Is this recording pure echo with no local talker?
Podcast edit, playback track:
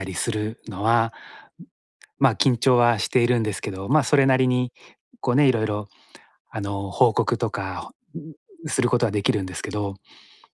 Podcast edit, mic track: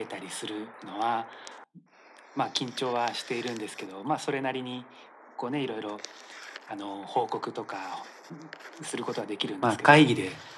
No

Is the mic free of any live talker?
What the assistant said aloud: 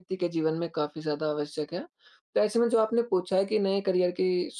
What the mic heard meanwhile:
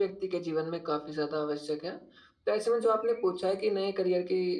Yes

